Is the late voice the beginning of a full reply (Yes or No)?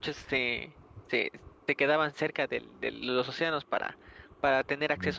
No